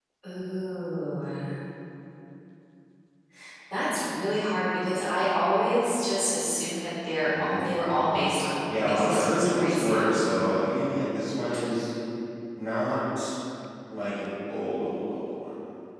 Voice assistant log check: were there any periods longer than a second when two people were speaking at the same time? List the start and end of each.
8.7-10.2

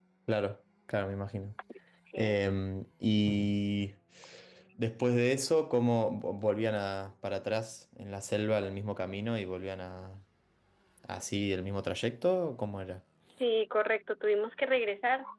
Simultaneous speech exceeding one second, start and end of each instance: none

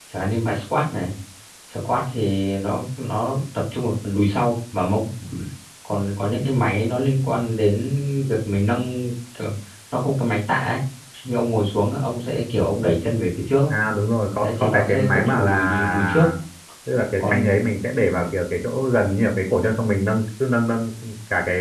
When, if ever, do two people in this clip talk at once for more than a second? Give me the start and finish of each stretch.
14.4-16.3

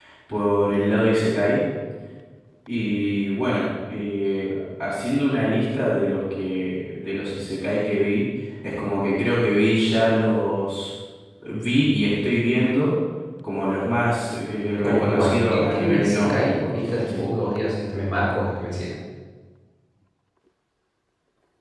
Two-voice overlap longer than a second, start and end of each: 14.8-17.2

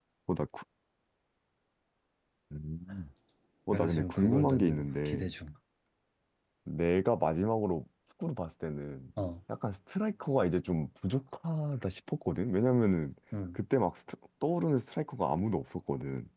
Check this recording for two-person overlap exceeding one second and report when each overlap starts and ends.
3.7-5.2

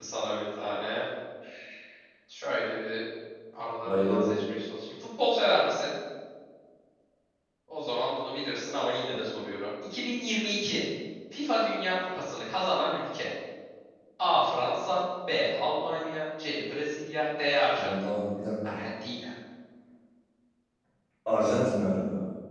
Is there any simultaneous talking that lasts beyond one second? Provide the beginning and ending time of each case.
none

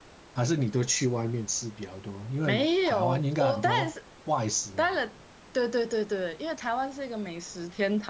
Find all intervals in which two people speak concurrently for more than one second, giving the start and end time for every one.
2.5-3.9

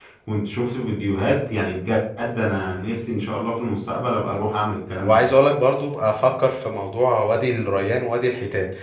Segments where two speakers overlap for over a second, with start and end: none

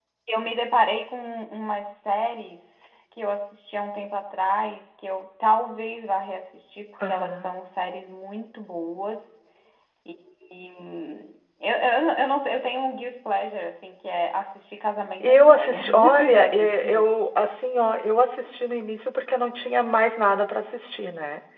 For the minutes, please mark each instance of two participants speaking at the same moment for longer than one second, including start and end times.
15.2-17.1

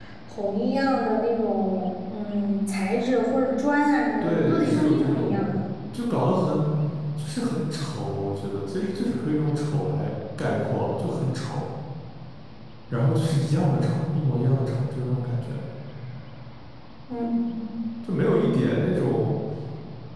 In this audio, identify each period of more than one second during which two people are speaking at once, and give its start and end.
4.2-5.6

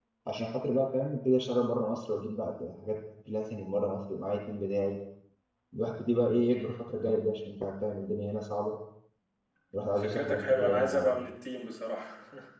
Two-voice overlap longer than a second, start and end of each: 10.0-11.2

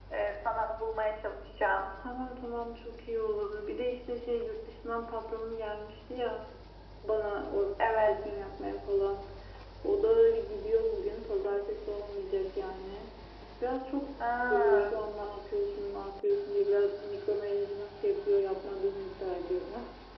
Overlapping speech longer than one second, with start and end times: none

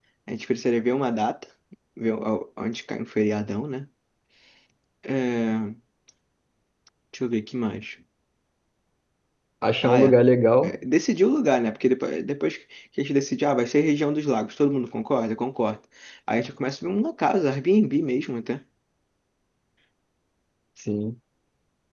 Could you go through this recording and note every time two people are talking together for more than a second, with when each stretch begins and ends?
none

